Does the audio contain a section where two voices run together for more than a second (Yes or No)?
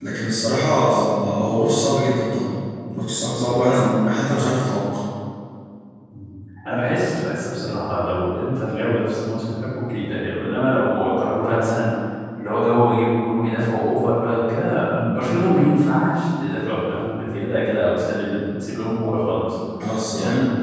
No